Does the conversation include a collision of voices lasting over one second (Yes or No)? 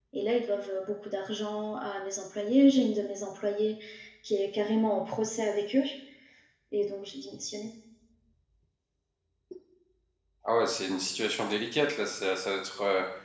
No